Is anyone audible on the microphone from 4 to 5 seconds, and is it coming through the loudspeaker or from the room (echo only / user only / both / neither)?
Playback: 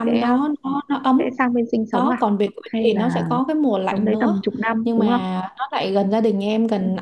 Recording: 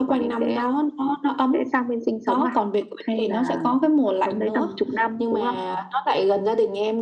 echo only